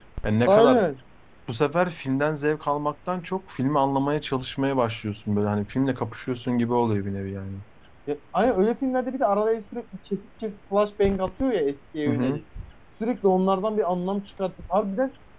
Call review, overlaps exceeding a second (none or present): none